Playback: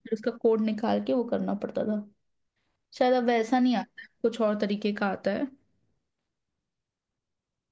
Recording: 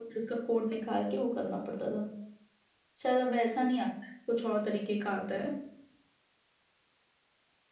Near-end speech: none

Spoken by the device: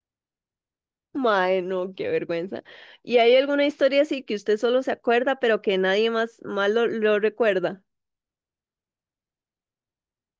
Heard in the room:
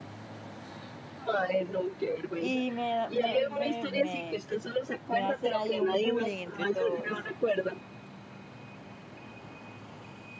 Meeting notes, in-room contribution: present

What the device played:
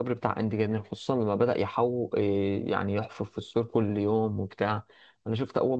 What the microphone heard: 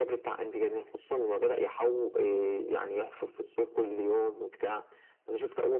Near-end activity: none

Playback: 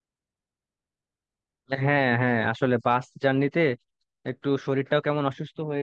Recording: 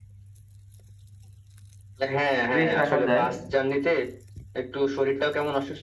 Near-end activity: present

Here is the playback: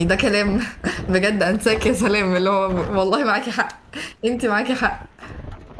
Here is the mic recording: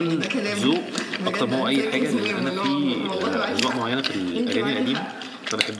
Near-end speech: present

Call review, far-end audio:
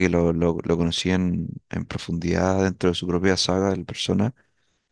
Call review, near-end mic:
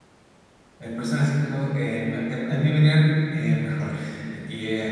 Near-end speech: present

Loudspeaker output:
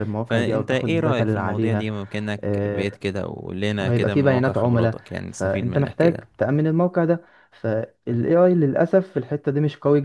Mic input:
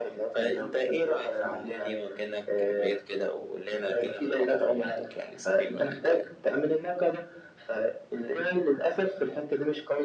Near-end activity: none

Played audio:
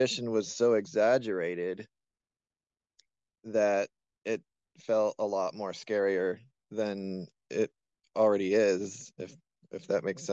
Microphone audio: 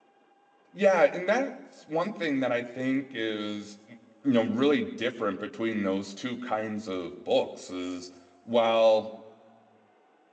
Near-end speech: present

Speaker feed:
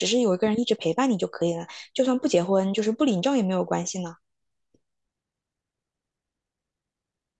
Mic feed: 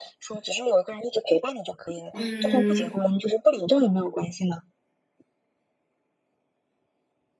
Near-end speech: present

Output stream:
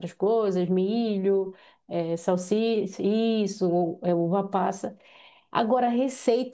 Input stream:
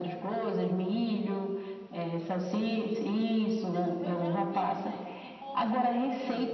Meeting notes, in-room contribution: present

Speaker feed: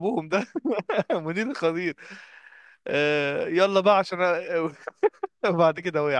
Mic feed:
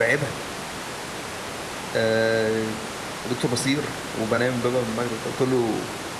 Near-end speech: present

